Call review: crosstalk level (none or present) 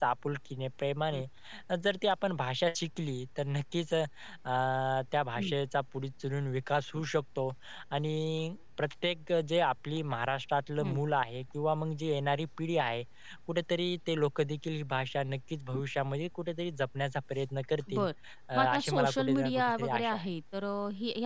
present